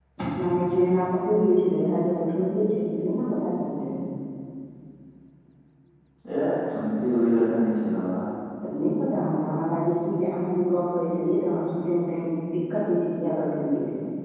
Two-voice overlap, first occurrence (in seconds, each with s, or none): none